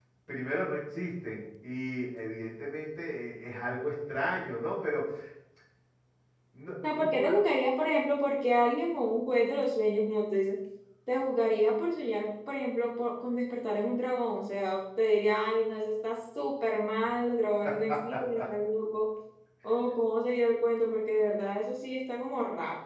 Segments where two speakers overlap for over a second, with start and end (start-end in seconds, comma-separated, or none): none